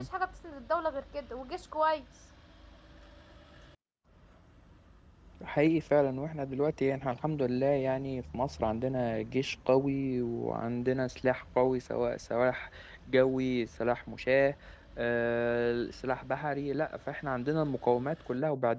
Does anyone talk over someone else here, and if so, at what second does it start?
none

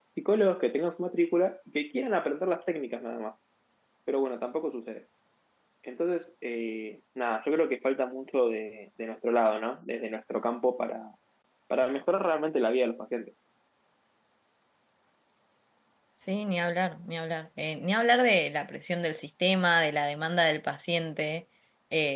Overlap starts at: none

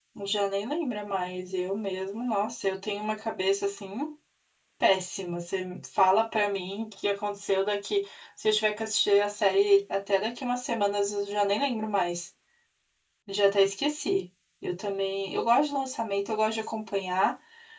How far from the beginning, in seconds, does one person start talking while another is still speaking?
none

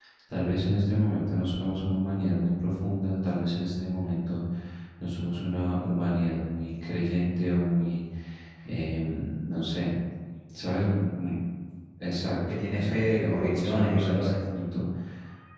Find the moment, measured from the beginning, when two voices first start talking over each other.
12.5 s

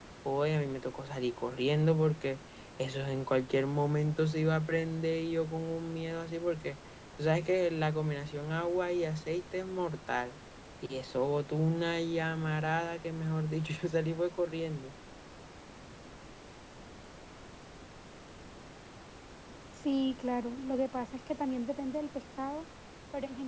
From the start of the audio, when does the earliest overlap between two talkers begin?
none

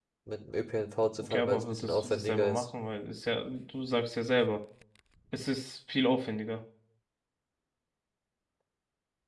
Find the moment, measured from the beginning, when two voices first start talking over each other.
1.2 s

